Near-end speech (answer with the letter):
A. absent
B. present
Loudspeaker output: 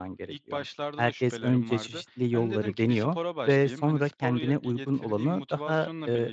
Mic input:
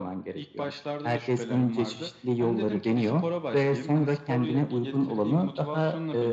A